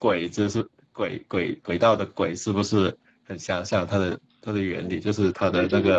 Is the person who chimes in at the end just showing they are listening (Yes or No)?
No